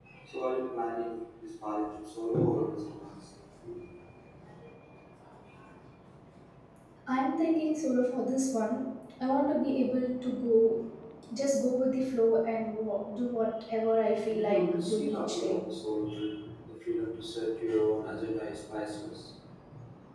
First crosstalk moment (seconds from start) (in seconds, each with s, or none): 14.3 s